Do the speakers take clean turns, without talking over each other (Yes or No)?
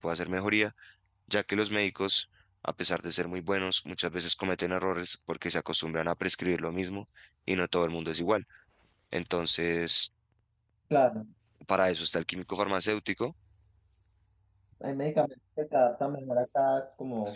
Yes